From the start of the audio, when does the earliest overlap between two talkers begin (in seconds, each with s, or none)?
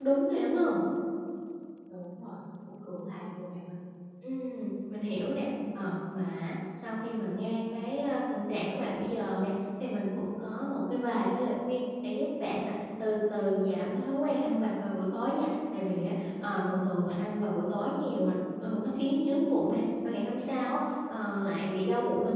none